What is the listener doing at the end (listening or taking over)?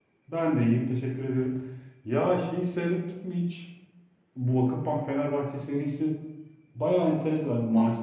listening